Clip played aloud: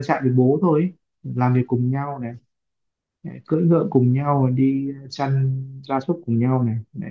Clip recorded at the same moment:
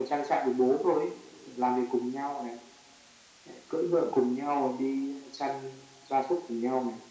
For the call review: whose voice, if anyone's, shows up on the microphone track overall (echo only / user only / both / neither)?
echo only